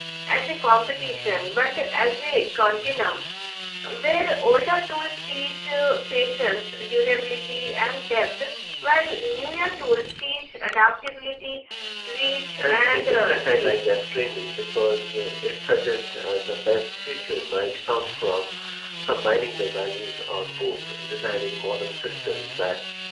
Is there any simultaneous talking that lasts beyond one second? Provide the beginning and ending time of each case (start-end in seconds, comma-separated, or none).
12.6-13.8